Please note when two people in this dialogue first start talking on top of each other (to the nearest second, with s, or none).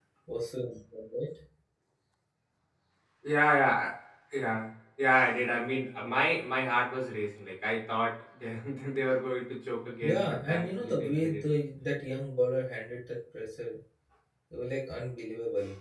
10 s